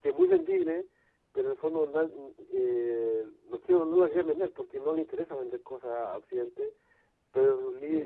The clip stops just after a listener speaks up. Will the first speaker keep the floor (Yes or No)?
Yes